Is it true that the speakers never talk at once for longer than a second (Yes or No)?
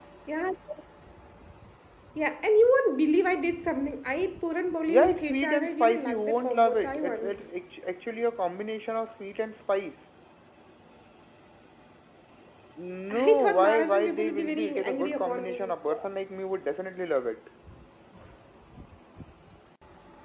No